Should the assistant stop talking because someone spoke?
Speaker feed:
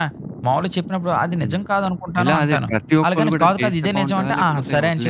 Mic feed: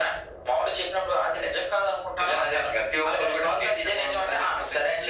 No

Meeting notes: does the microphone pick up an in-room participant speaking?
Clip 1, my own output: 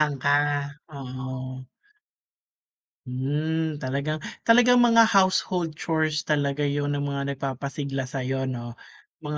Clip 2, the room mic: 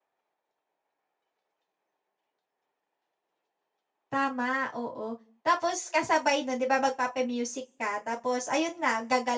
Yes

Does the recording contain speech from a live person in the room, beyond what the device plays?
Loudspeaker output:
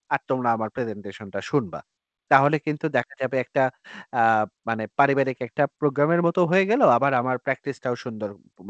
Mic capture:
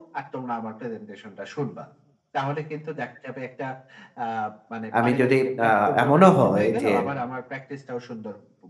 Yes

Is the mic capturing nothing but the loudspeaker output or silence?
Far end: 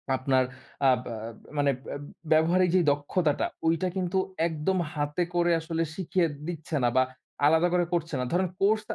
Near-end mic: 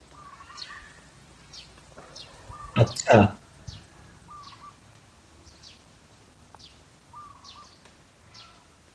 No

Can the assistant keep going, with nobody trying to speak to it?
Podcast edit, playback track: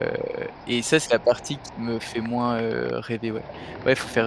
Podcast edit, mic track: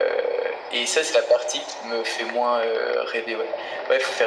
Yes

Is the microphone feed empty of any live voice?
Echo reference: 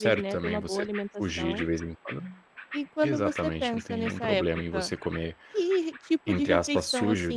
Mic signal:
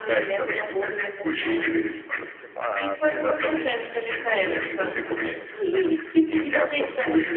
No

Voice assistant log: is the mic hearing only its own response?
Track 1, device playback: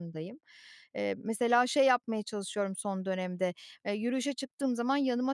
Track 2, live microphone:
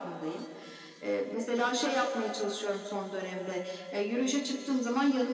Yes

